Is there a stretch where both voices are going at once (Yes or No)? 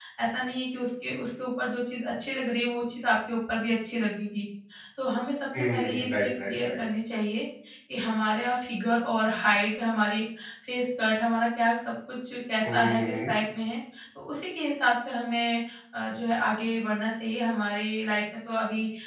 Yes